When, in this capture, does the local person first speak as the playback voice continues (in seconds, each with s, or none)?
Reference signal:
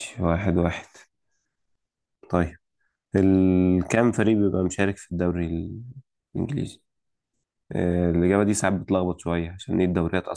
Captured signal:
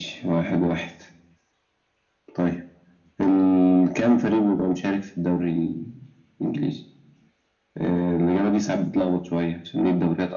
none